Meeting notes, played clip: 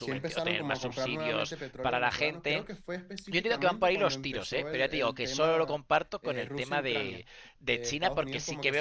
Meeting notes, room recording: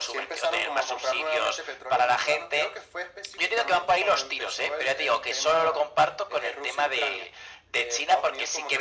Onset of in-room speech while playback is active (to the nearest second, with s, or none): none